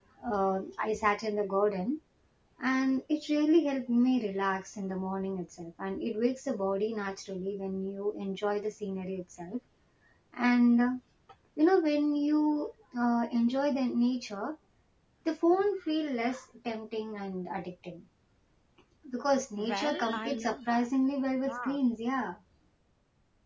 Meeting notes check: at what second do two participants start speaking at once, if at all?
19.6 s

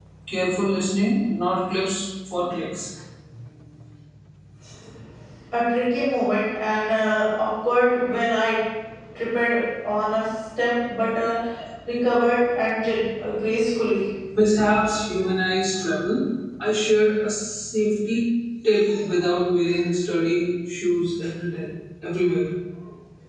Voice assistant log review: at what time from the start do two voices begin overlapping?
none

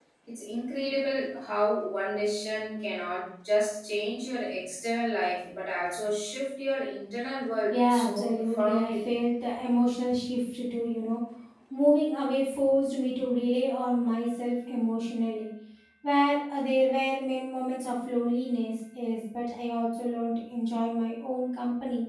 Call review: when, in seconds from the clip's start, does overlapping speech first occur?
7.7 s

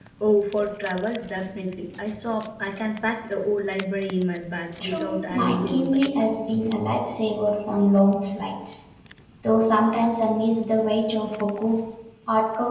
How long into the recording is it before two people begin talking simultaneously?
4.8 s

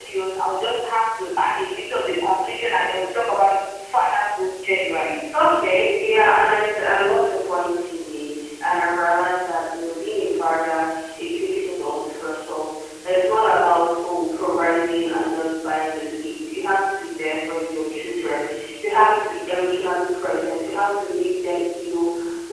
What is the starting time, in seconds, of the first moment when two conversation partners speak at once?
none

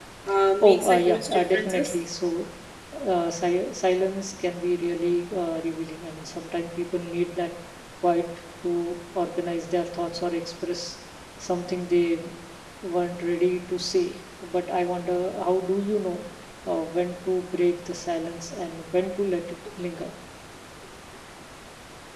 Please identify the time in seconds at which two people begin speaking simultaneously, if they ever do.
0.6 s

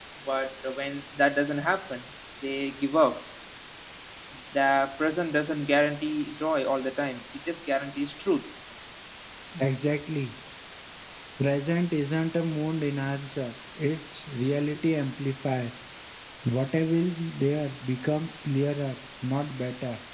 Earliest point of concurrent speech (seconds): none

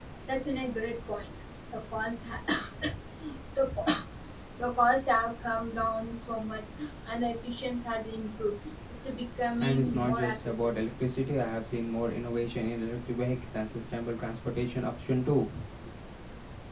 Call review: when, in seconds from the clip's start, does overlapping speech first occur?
9.6 s

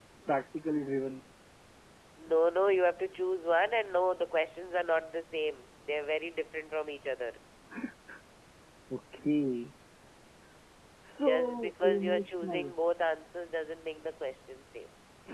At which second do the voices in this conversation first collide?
11.2 s

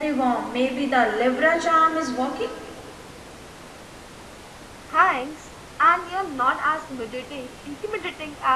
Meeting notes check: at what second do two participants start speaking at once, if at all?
none

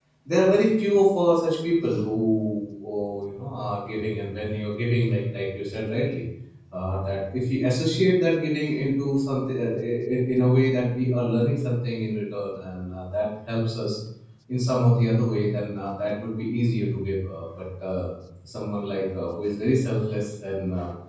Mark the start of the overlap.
none

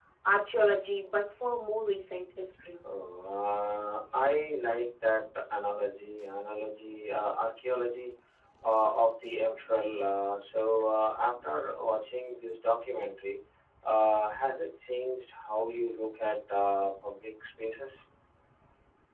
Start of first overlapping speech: none

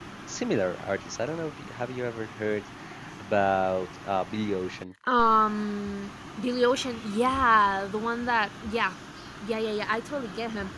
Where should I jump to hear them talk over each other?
none

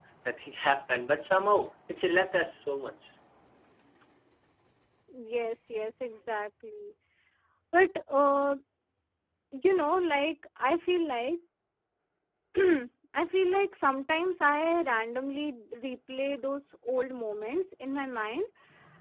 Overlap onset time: none

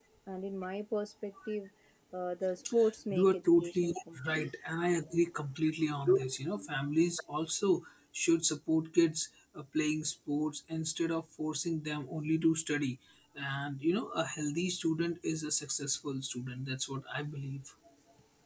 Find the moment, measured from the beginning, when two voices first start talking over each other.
3.1 s

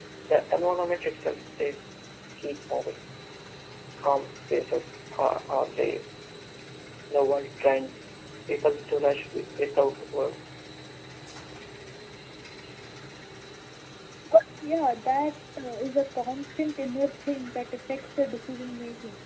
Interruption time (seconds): none

